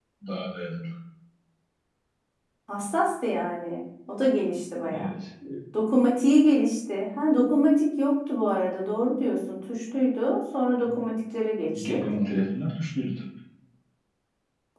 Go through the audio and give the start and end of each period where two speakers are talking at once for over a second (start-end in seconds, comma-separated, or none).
none